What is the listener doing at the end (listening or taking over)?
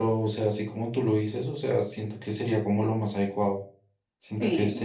listening